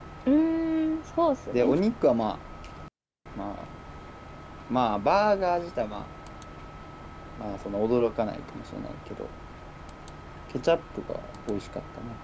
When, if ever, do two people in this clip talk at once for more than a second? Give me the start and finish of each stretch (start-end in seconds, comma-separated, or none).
none